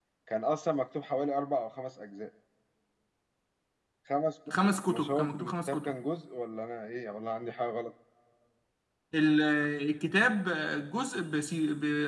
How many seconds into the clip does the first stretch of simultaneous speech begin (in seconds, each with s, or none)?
4.5 s